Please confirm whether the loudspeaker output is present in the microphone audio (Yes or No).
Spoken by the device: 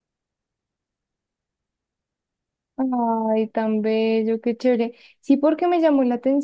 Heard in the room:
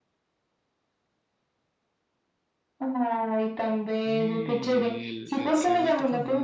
Yes